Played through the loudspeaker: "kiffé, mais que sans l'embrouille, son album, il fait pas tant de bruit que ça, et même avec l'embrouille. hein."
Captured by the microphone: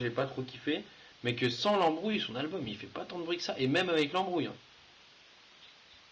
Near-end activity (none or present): none